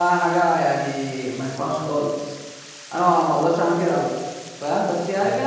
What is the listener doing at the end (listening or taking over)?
listening